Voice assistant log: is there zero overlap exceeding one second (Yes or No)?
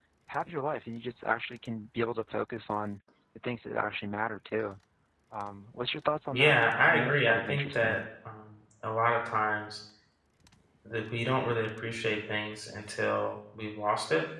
No